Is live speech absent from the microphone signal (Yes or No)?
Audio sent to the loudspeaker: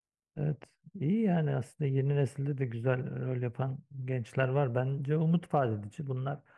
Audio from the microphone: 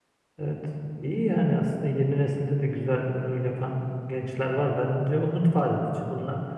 Yes